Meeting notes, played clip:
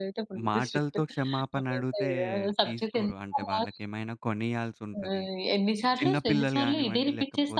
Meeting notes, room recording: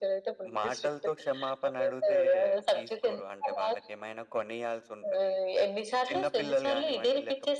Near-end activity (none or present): none